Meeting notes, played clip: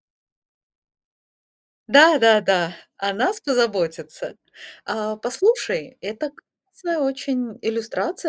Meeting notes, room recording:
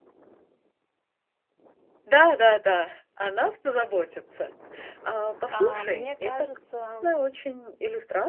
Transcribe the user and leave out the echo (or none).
А, мне кажется, м,